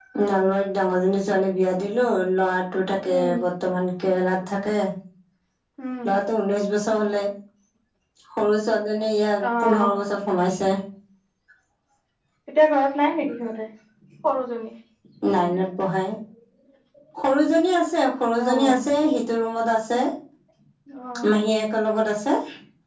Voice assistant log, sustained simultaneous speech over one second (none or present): none